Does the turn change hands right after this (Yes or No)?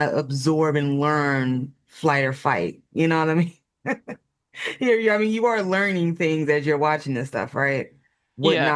No